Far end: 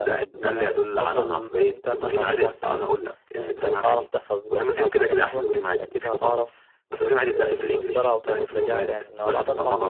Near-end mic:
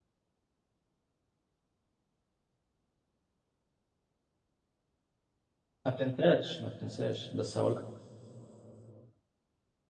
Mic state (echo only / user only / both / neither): user only